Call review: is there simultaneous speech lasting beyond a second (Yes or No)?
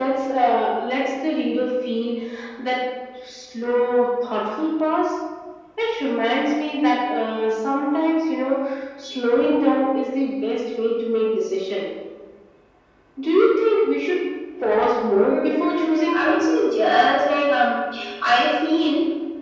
Yes